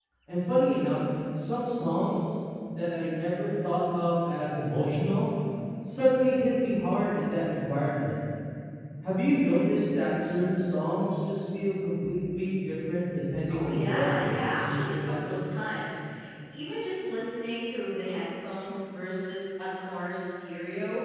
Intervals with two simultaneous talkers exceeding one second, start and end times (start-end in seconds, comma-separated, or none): 13.5-15.3